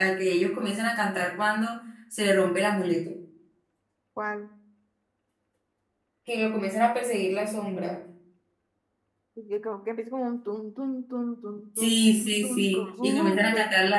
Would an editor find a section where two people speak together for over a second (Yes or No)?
Yes